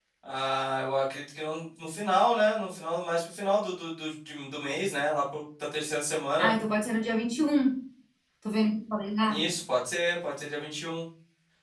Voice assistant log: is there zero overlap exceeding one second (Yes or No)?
Yes